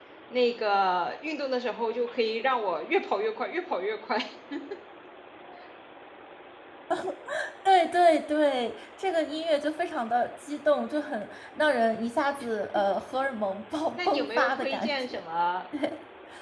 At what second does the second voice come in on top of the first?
14.0 s

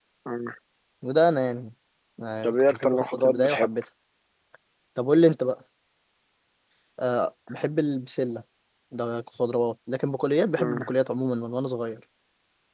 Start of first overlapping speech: 2.4 s

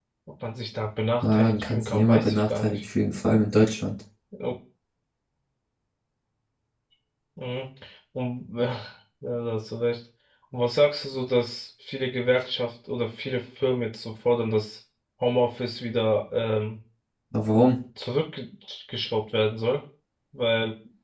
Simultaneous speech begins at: 1.2 s

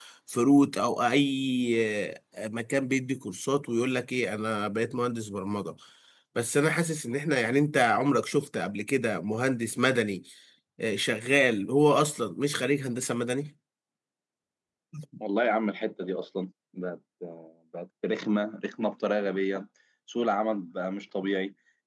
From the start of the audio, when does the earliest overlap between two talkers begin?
none

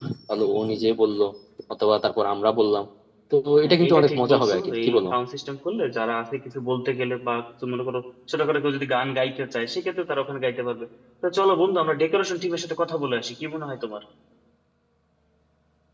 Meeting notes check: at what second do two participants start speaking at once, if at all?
3.6 s

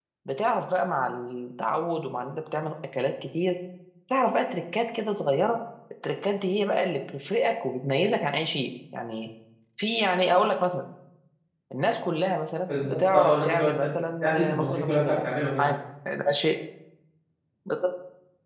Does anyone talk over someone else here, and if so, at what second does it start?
12.7 s

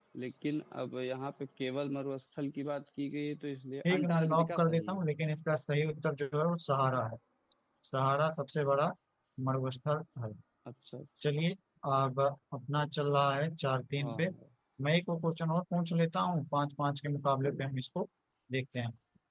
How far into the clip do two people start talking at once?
3.8 s

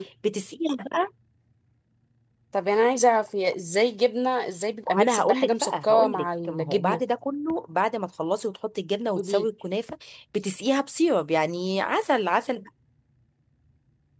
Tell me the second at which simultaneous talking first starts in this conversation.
5.0 s

